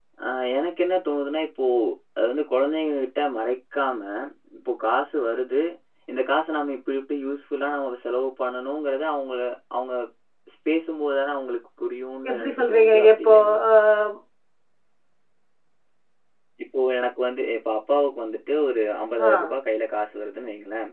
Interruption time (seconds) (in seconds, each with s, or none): 12.3 s